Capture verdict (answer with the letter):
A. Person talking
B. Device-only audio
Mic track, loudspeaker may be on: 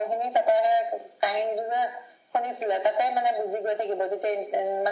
B